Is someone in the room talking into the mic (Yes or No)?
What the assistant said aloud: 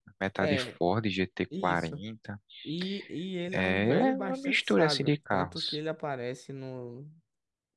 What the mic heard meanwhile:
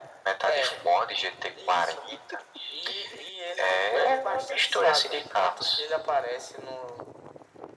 No